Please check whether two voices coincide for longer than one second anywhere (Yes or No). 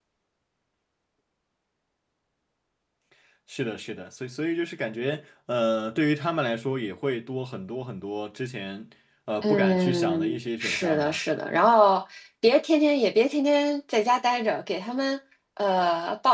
Yes